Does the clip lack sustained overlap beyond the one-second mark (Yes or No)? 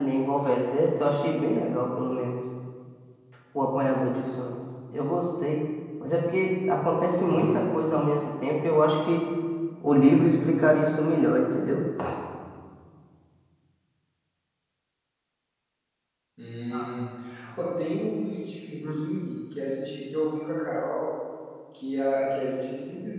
Yes